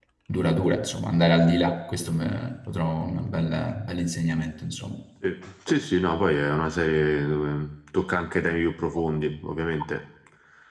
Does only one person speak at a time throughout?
Yes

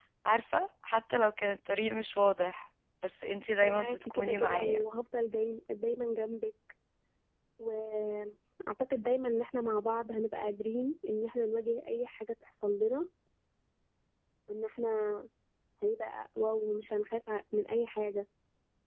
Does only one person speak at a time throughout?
No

